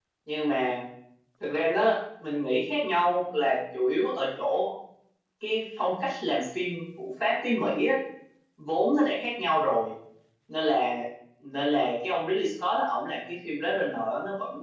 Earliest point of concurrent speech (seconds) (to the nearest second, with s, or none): none